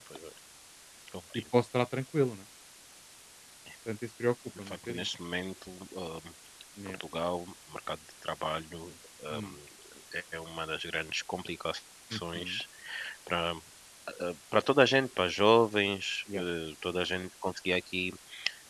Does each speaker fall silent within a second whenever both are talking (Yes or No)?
Yes